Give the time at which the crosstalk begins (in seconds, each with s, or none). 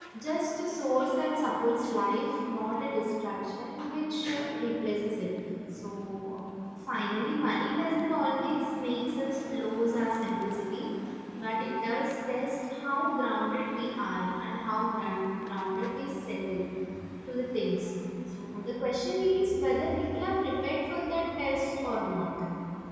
none